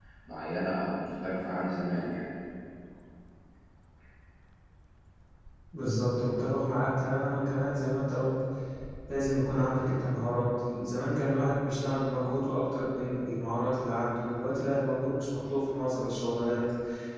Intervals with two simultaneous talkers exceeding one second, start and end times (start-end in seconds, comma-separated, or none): none